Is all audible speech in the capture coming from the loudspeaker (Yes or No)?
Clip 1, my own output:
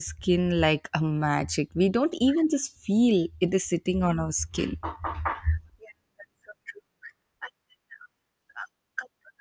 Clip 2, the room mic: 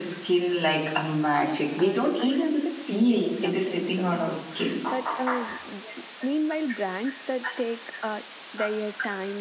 No